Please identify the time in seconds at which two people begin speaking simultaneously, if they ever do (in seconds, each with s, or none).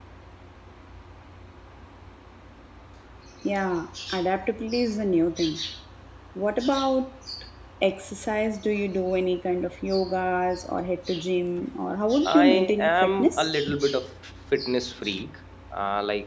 12.2 s